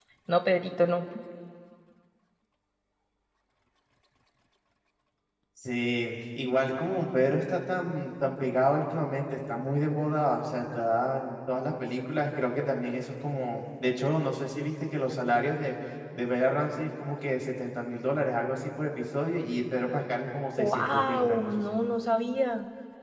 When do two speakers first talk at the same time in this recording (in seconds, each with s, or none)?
20.6 s